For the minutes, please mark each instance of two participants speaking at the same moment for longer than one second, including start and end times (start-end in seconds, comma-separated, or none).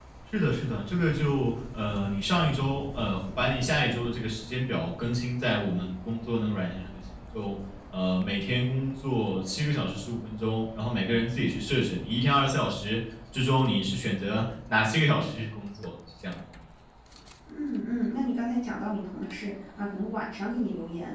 none